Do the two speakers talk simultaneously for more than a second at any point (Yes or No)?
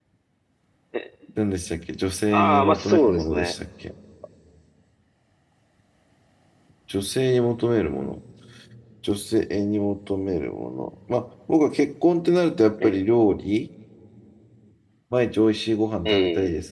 Yes